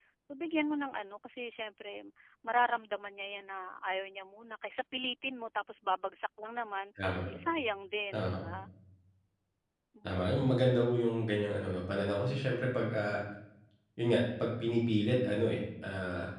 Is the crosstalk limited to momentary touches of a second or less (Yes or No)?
Yes